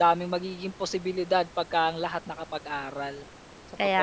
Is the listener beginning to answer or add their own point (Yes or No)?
Yes